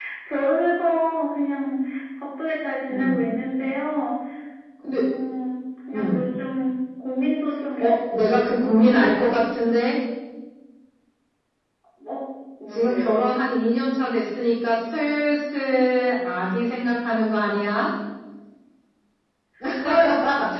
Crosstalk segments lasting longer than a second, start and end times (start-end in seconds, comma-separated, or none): 7.8-9.4